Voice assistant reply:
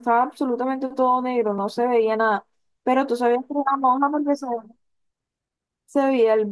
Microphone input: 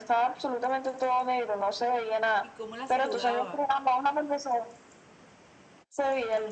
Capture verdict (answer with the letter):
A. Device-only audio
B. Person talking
B